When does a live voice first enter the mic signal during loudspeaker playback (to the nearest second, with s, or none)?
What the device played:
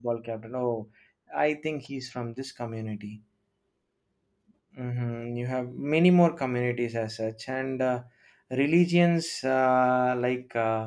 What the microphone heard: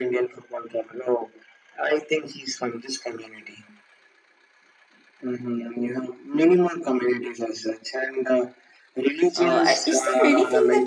9 s